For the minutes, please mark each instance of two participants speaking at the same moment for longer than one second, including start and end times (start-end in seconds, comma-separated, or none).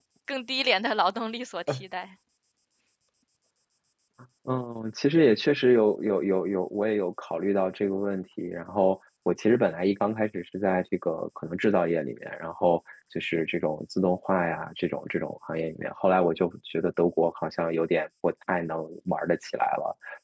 none